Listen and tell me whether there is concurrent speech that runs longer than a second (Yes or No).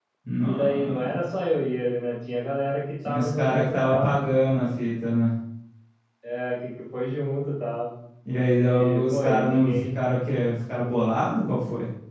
Yes